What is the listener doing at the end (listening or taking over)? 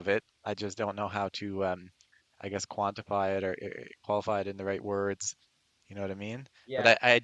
listening